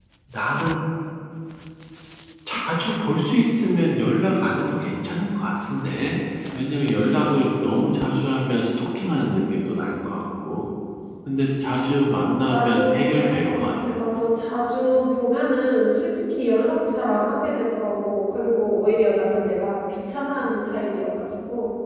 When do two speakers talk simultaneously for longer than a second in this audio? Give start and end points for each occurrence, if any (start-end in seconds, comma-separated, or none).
12.1-13.6